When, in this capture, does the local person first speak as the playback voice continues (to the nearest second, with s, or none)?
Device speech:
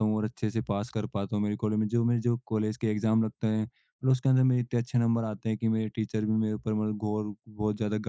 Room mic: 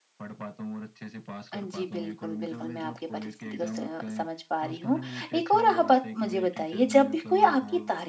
2 s